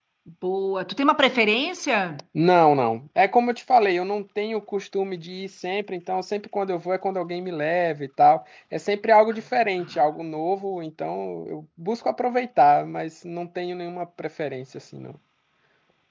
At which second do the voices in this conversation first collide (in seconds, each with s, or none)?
none